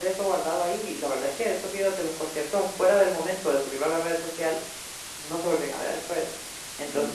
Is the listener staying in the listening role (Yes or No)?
Yes